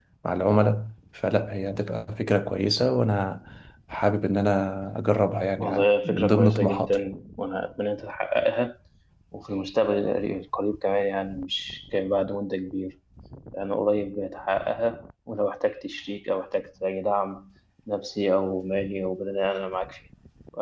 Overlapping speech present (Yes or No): Yes